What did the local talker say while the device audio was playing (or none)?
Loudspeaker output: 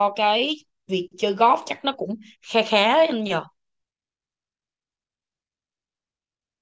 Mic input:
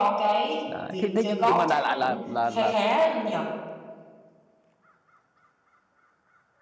đấy. thế thế nhưng nhưng mà đại lại là là là